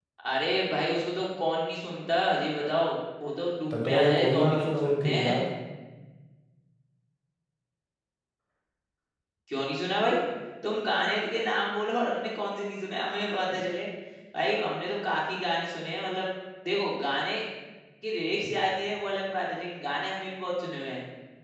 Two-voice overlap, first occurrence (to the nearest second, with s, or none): 4 s